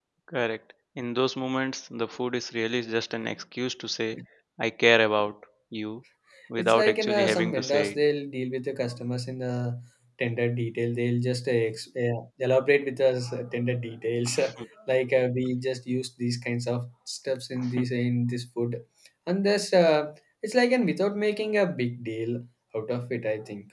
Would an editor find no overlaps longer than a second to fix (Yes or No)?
No